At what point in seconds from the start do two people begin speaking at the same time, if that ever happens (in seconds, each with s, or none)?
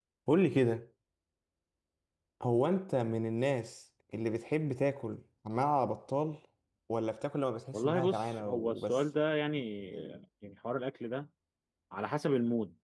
7.7 s